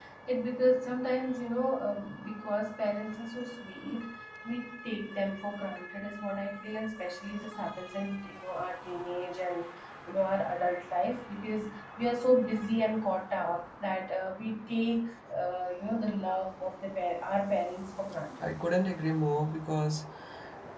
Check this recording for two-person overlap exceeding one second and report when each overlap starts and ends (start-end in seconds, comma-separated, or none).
none